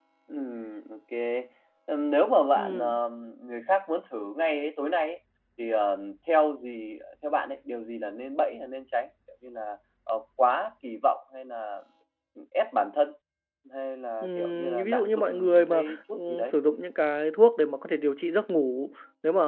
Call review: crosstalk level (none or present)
present